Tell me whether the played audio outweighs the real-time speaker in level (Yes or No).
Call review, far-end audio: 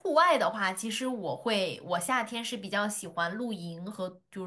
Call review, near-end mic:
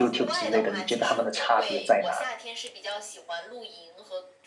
No